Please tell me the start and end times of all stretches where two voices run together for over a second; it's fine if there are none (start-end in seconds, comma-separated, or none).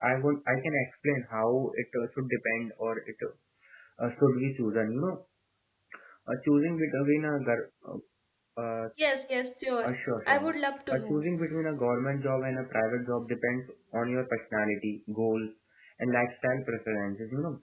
none